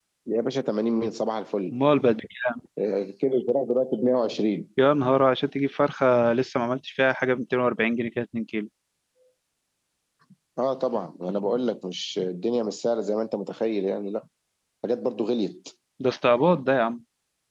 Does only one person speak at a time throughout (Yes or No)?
Yes